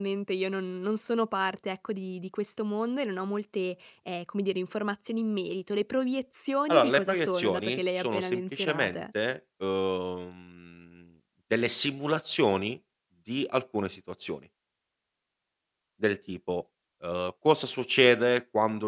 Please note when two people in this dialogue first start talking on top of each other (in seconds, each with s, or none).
6.7 s